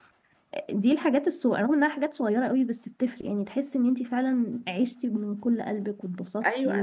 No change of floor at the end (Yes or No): No